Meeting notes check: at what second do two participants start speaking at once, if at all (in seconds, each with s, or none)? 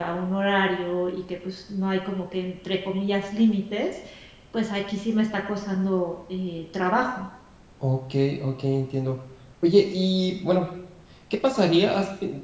none